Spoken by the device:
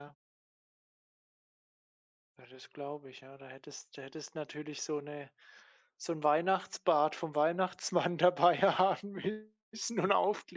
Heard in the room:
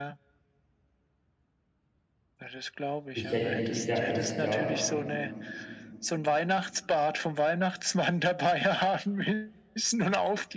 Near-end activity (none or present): present